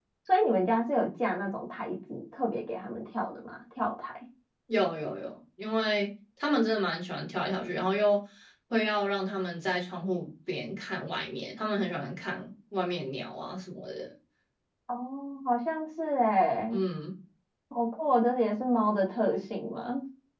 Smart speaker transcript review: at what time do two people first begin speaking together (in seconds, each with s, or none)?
none